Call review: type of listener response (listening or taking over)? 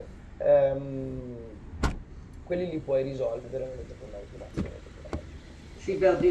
taking over